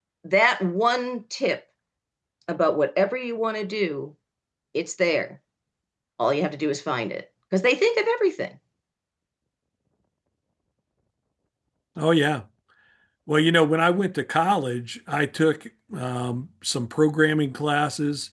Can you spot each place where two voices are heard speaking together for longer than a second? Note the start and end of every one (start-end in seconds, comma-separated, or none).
none